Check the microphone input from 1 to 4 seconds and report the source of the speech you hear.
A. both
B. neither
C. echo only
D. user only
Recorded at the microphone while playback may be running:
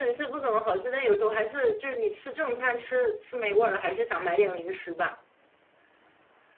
C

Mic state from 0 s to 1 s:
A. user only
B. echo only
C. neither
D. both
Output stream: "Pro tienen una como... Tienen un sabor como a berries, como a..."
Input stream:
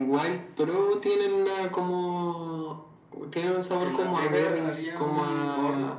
B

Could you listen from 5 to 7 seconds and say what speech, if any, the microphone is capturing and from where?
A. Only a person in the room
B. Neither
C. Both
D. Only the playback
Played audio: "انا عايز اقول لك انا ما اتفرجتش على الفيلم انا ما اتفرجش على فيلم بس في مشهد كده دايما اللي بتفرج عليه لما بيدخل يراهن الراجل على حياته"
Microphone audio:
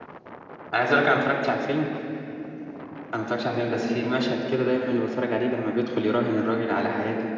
D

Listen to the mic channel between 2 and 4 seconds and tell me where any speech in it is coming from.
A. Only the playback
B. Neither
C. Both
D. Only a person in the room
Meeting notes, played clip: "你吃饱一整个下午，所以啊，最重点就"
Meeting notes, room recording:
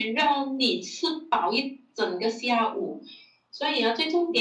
A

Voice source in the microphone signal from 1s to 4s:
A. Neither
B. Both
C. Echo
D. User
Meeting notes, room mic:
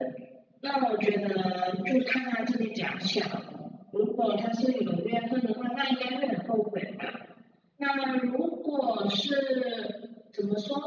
C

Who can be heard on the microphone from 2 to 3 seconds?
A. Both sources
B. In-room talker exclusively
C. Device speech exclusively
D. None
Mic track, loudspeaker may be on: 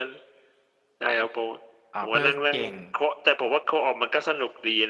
A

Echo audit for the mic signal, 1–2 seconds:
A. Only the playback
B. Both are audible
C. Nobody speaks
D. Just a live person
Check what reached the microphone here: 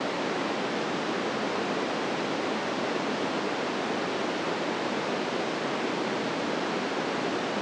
C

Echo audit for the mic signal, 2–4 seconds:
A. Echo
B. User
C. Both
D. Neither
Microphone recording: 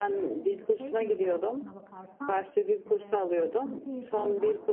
C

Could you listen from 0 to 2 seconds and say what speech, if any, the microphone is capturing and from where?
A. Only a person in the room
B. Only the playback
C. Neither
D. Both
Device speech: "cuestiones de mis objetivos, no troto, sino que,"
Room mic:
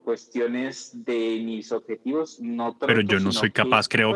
B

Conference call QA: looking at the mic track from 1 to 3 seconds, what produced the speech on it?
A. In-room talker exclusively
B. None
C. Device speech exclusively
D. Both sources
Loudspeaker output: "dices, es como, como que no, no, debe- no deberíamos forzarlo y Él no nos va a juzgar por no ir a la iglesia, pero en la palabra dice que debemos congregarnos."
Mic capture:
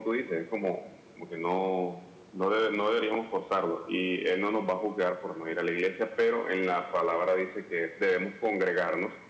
C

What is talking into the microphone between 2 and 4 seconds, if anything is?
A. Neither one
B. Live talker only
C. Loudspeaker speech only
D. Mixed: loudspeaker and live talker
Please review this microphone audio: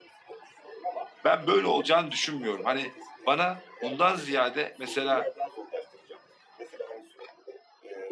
D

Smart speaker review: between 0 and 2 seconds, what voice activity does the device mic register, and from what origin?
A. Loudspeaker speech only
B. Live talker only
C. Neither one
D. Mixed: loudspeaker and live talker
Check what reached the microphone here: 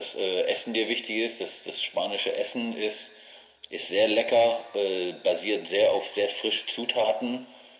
A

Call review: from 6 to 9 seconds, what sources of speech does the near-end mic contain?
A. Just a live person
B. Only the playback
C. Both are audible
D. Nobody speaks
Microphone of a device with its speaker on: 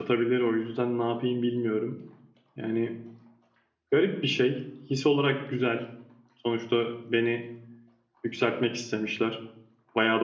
A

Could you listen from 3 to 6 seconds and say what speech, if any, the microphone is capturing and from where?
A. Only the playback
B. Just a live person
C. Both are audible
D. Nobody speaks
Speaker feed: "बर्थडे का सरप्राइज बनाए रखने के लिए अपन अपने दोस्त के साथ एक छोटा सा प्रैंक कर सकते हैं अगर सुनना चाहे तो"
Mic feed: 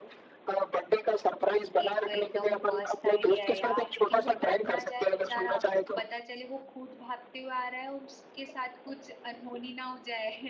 C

